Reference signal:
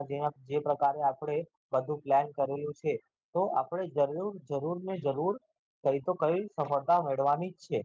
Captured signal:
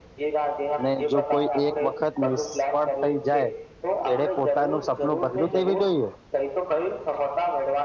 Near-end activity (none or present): present